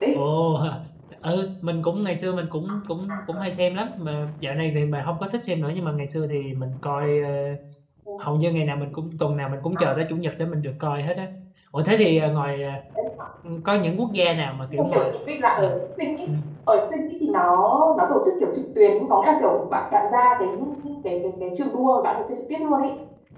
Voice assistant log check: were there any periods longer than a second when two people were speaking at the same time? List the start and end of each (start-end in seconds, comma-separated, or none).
none